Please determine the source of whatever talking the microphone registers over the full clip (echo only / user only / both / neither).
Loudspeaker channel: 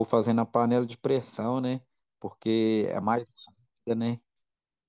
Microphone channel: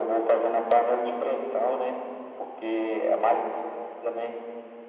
echo only